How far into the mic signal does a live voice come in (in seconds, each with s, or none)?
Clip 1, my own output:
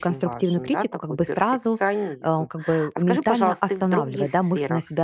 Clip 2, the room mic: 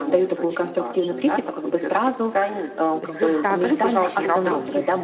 3.0 s